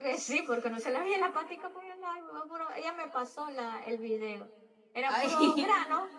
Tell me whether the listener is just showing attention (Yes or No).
Yes